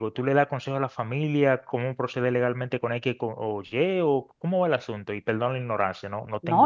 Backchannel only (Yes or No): No